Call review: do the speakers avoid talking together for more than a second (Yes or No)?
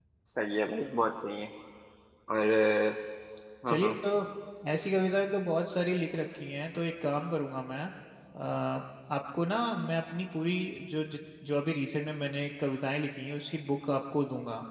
Yes